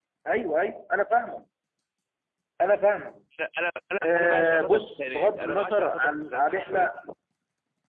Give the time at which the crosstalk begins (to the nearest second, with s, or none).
4 s